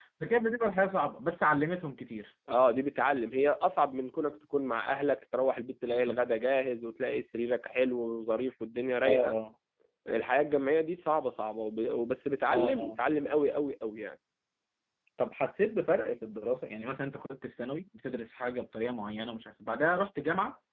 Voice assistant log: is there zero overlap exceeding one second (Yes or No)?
Yes